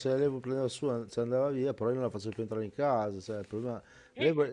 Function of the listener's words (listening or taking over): listening